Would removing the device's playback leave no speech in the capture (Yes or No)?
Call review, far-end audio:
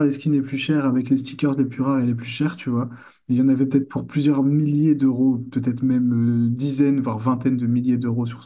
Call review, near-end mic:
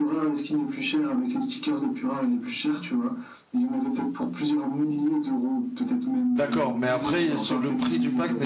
No